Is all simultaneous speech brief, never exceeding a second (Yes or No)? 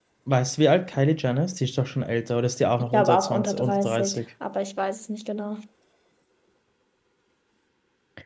No